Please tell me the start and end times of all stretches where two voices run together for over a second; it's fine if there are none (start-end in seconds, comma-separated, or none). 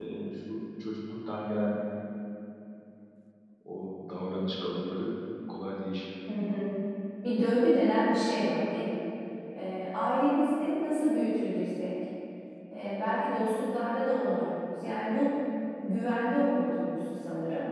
none